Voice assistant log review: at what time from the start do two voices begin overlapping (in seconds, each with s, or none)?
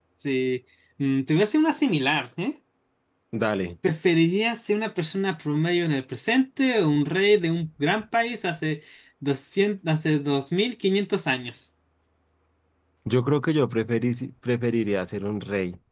none